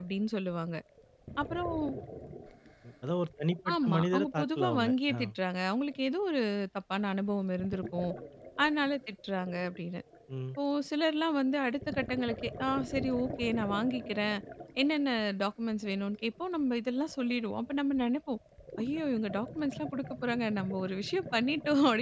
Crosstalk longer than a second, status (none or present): present